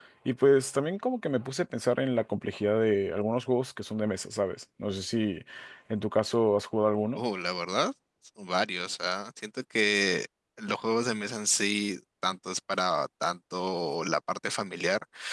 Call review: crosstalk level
none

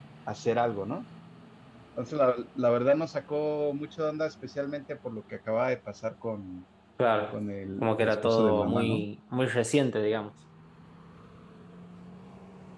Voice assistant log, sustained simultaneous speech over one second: present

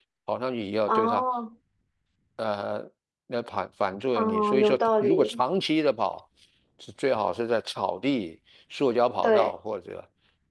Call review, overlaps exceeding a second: present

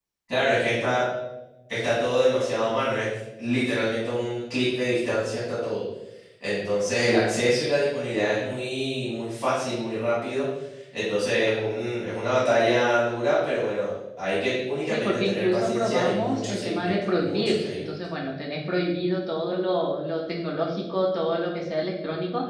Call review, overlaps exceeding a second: present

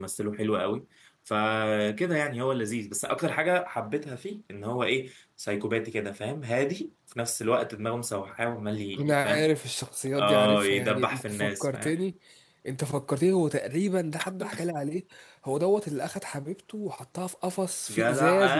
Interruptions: present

